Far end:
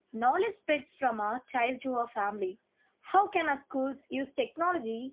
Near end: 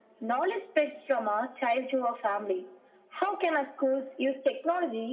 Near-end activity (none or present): none